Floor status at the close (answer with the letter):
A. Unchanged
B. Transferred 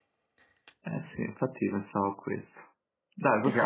B